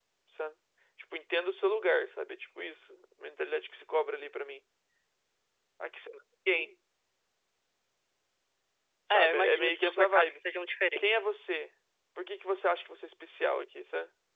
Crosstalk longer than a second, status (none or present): present